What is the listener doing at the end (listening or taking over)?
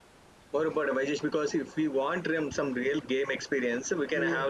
listening